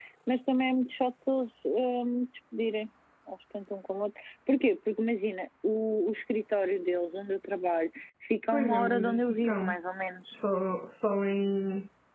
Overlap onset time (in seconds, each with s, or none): 8.5 s